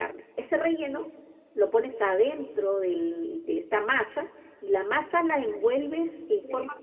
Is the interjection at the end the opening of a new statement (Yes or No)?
No